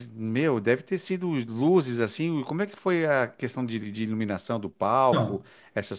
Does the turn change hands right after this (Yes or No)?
No